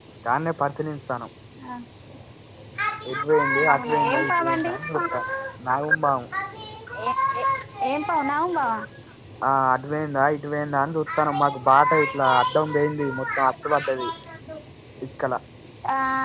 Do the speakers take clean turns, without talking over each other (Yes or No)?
No